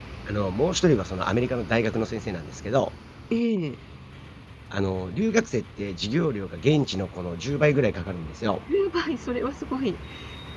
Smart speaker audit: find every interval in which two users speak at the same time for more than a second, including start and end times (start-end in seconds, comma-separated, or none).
none